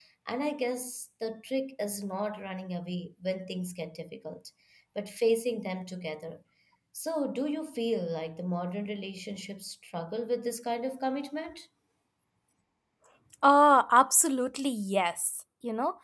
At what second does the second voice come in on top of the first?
none

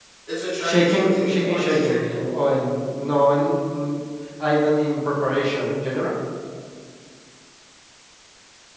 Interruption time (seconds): 0.7 s

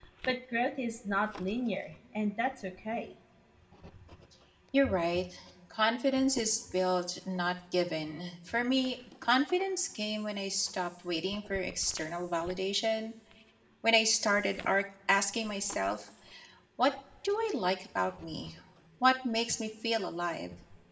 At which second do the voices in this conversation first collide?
none

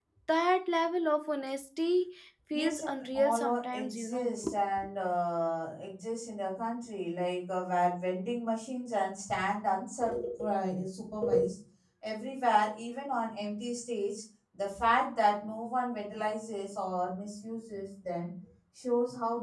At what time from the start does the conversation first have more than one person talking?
2.5 s

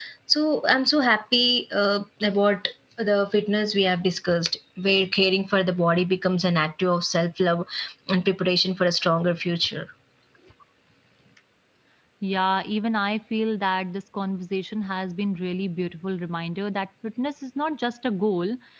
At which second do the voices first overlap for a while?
none

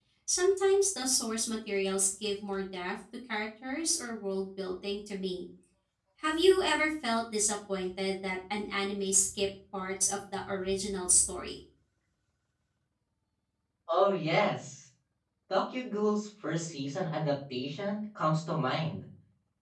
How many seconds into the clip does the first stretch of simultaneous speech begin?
none

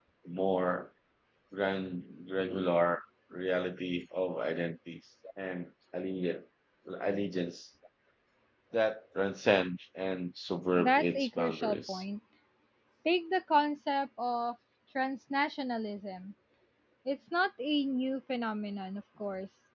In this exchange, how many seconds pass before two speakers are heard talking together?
10.8 s

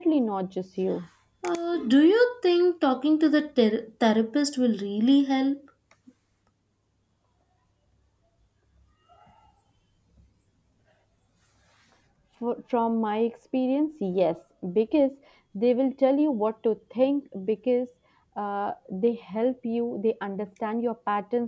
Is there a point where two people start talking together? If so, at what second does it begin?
none

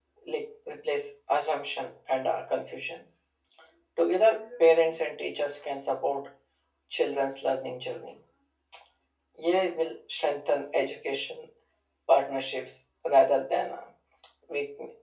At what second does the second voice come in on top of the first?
none

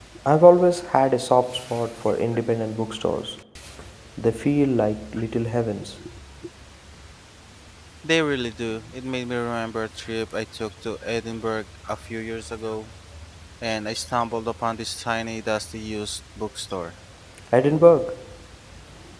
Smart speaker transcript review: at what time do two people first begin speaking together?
none

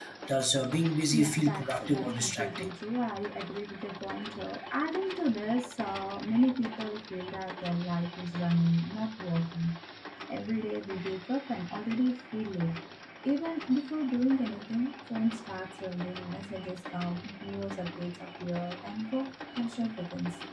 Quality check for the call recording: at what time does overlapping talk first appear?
1.1 s

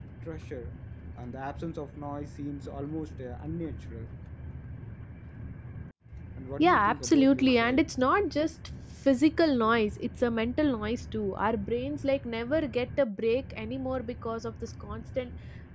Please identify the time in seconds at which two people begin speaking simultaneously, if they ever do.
6.6 s

